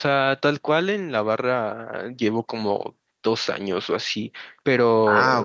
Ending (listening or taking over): listening